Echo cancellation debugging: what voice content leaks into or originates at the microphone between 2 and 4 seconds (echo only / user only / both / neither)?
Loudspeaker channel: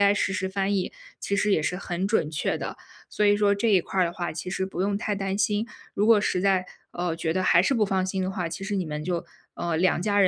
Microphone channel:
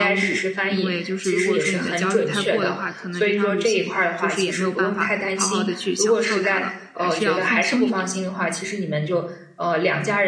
both